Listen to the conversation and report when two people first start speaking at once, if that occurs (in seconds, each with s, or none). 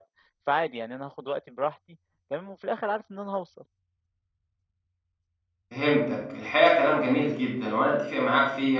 none